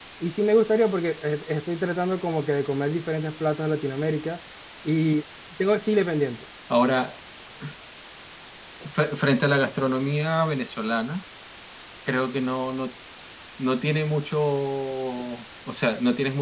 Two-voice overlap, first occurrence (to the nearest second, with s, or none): none